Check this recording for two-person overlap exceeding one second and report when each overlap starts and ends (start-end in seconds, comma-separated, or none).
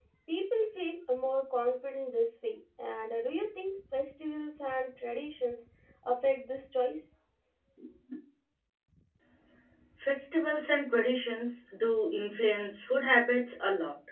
none